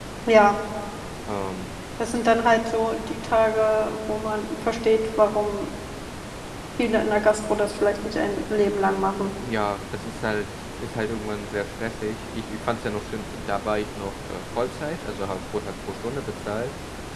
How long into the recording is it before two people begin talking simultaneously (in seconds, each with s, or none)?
none